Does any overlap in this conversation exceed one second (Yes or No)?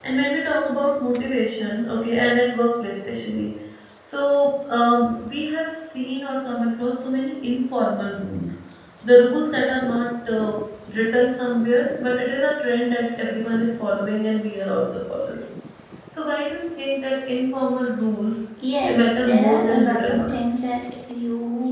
Yes